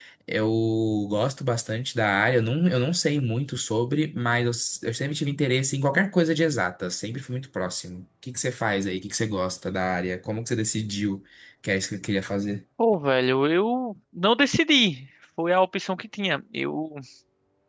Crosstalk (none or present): none